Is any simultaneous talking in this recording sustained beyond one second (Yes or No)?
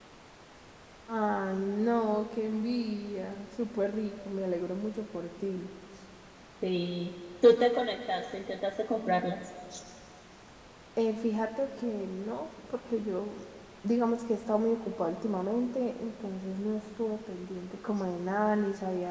No